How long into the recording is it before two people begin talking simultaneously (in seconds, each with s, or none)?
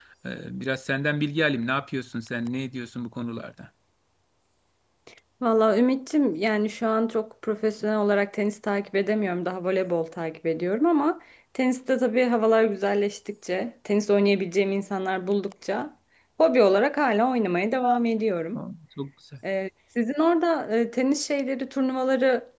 none